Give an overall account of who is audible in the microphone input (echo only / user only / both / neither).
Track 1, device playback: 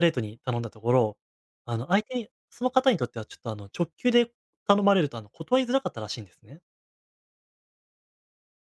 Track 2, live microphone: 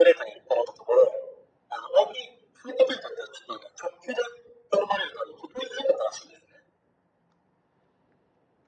echo only